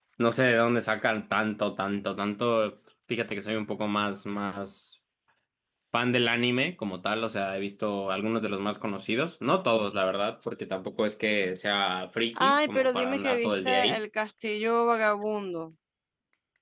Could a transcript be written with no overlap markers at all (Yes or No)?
No